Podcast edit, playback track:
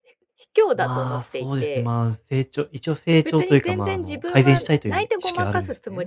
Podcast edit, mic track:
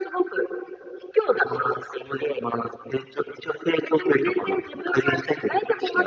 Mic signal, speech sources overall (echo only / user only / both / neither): echo only